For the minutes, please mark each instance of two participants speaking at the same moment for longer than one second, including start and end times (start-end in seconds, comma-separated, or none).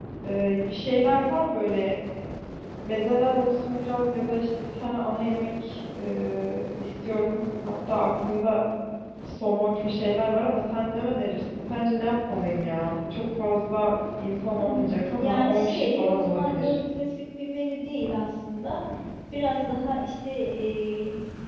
14.5-16.8